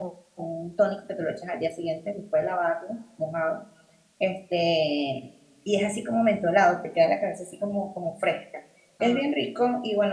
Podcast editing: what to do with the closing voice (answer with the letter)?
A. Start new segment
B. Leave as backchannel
B